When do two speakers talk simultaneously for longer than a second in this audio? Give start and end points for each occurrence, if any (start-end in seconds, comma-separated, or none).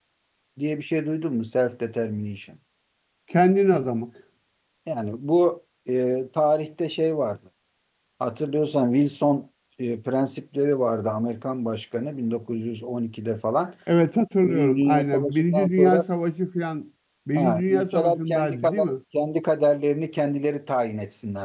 14.5-16.0, 17.4-18.9